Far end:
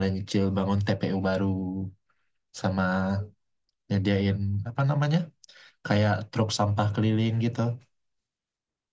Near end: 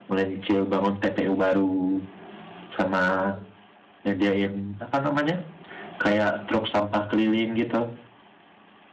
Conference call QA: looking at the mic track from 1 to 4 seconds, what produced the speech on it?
echo only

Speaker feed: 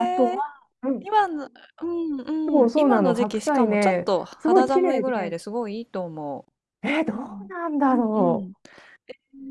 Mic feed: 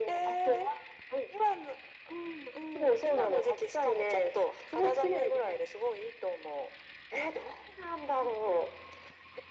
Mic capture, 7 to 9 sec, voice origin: echo only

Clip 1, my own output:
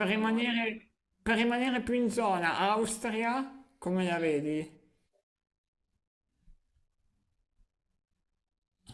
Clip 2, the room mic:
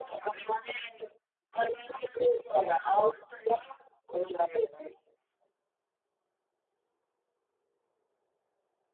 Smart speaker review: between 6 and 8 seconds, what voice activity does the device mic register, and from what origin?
neither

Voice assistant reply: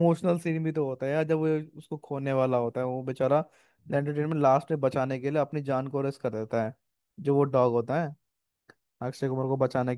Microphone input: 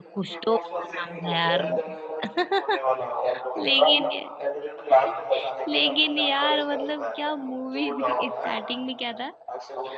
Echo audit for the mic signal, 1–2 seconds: both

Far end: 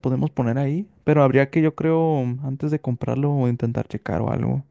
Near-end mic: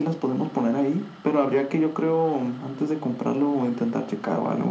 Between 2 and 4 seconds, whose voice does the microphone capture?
echo only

